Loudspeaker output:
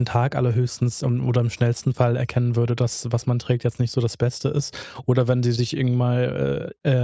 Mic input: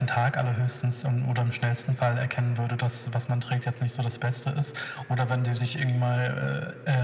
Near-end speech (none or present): none